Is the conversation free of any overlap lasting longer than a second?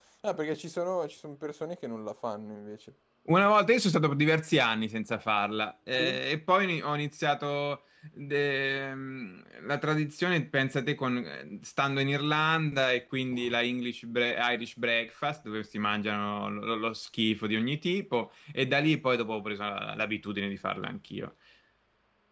Yes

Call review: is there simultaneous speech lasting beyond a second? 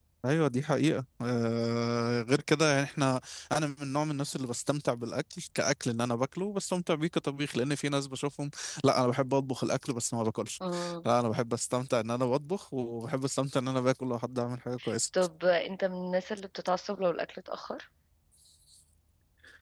No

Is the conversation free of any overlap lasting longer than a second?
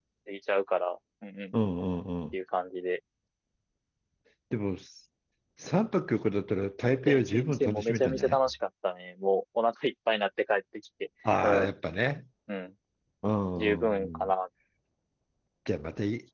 No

